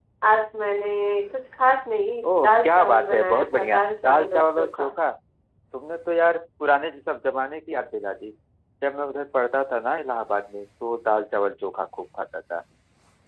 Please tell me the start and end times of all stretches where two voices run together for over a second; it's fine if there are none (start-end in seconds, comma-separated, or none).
2.3-4.9